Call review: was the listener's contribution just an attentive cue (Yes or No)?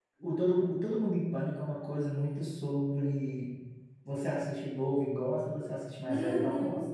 No